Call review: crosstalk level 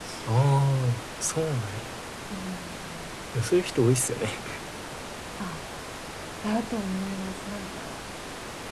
none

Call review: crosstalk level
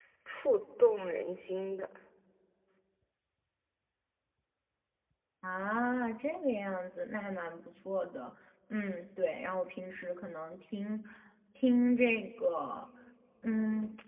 none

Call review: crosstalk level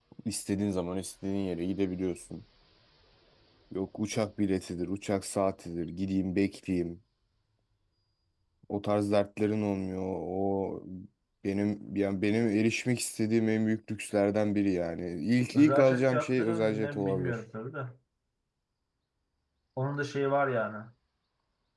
present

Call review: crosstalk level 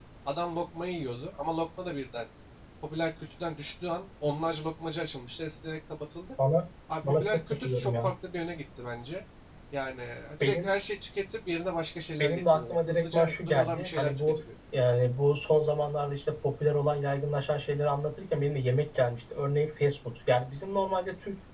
present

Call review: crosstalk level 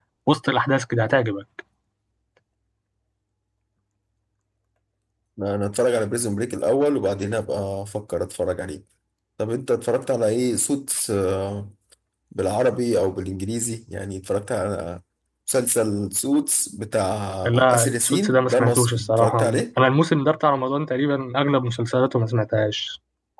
present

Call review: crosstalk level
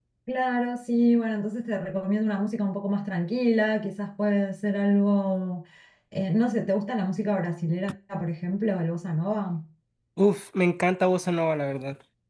none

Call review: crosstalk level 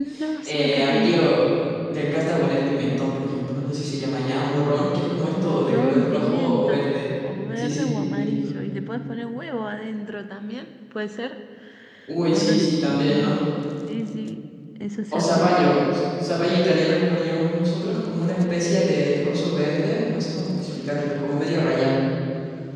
present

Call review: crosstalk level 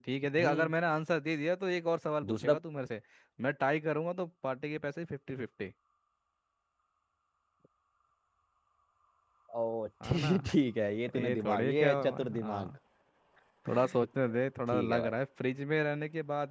present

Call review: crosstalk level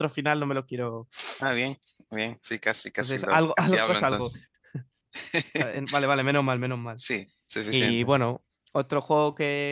present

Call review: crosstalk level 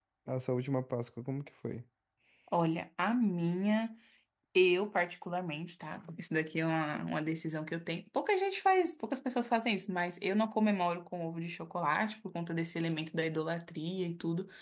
none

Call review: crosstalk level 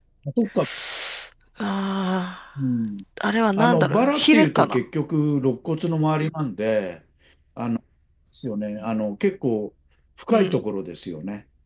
present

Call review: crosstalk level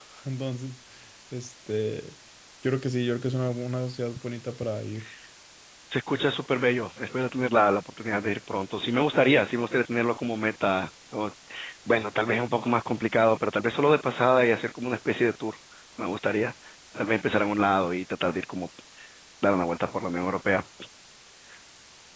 none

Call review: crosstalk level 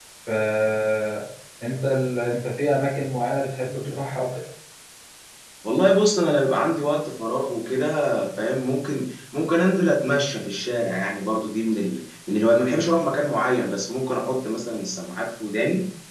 none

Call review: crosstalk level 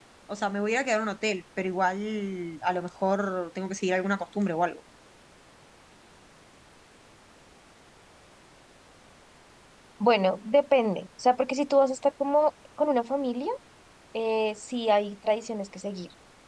none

